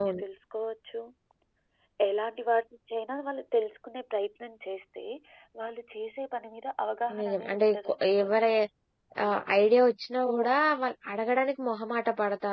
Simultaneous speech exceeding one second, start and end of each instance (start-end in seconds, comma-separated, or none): 7.2-8.5